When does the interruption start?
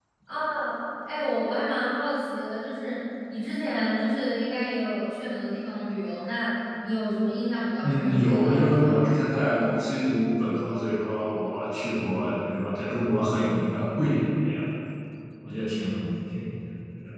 7.8 s

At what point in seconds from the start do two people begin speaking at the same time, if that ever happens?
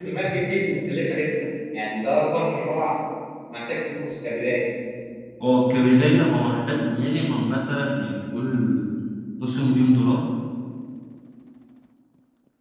none

